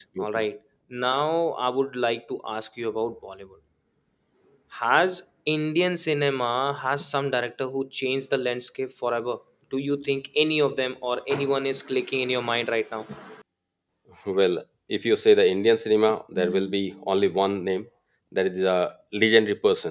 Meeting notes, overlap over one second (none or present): none